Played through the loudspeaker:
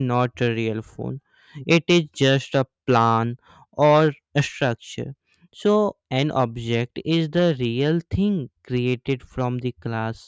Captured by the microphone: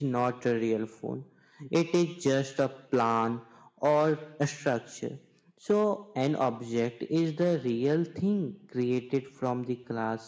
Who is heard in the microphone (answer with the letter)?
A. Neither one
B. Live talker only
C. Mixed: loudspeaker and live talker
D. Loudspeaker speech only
D